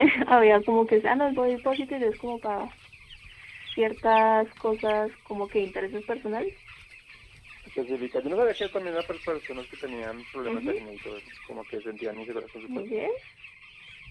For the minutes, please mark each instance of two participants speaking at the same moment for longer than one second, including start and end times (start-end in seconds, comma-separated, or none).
none